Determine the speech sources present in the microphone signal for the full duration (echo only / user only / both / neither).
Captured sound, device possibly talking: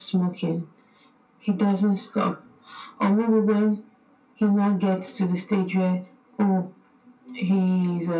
echo only